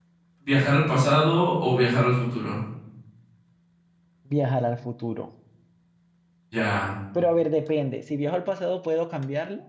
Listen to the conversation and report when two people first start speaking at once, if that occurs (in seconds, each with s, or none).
none